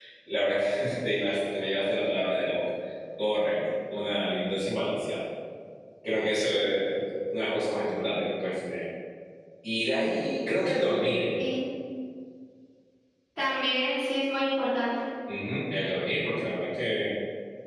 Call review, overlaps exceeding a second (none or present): none